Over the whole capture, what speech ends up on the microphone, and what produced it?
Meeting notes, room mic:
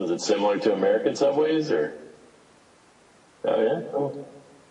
echo only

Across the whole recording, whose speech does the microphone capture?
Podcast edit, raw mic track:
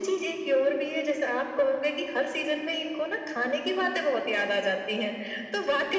echo only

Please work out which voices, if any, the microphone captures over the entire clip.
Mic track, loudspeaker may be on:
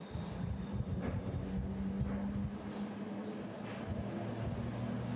neither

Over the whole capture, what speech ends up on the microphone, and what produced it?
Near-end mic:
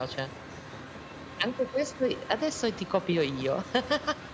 echo only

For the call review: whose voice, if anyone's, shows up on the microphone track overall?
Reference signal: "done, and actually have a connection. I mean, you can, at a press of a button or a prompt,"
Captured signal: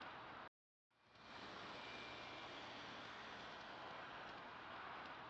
neither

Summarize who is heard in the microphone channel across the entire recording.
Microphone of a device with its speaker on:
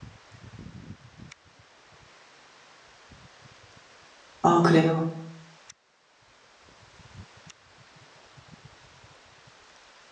user only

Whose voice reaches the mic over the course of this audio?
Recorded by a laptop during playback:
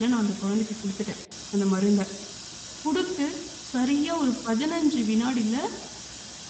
user only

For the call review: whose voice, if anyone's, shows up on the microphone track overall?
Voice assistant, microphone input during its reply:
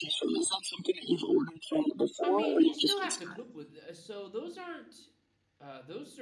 both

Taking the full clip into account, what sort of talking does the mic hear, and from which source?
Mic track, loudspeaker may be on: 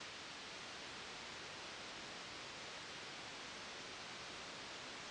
neither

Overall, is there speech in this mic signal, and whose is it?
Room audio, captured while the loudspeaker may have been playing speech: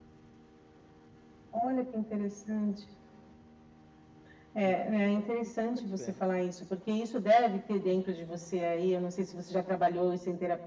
both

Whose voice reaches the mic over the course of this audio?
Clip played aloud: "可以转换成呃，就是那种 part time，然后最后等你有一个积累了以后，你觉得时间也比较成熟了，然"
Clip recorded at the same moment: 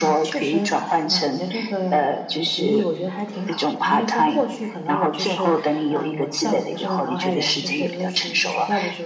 both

